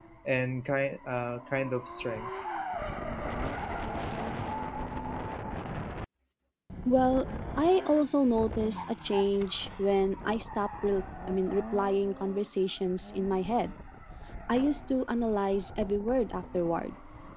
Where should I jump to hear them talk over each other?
none

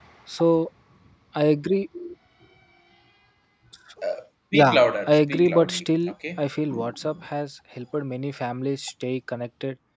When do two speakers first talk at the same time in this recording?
4.5 s

